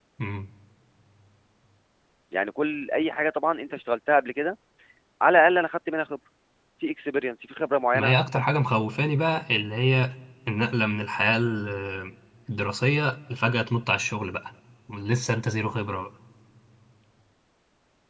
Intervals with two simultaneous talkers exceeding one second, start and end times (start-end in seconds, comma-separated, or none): none